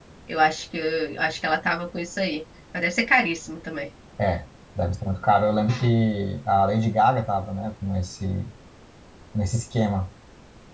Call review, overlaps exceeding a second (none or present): none